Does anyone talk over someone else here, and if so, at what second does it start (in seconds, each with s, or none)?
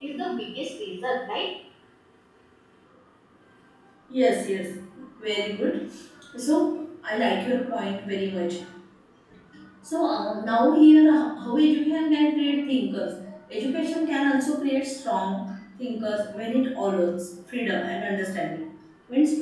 none